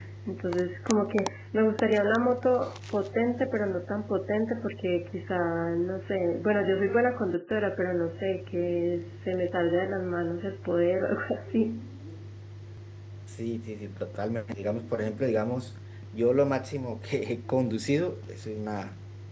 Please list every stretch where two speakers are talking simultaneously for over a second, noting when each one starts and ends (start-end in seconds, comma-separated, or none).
none